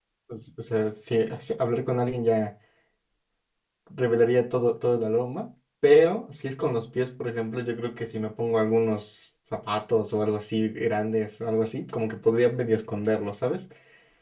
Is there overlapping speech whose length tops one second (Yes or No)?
No